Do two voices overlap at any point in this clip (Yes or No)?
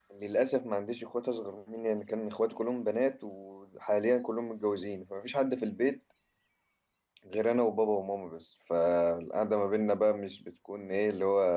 No